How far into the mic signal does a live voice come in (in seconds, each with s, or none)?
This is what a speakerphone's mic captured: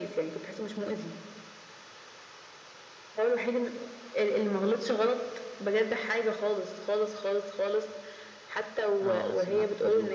9.0 s